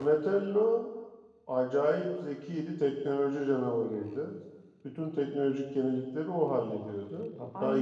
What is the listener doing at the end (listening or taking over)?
taking over